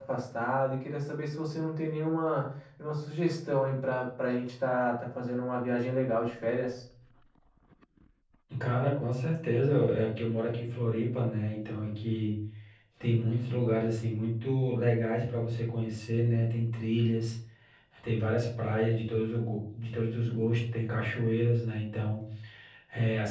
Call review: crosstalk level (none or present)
none